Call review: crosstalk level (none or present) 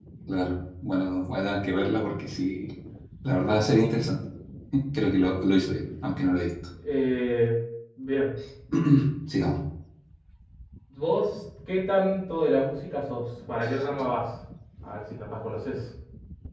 none